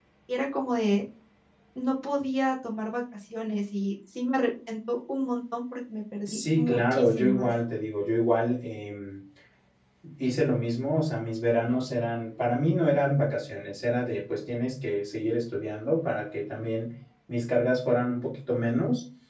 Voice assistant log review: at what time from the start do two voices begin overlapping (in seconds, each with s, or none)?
6.3 s